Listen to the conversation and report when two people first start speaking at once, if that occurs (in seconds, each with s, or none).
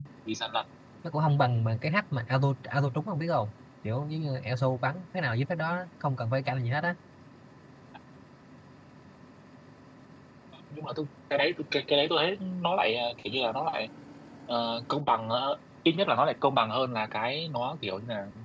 none